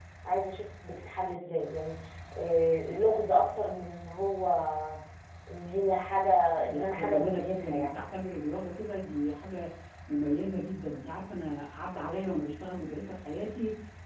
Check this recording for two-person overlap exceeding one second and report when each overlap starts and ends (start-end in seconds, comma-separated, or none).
6.6-7.9